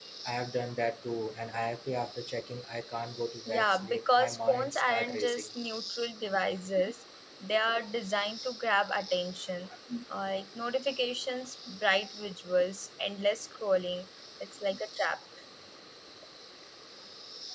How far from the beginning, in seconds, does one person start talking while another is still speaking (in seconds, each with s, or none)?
3.5 s